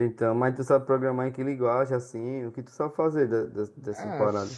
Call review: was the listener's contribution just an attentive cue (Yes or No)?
No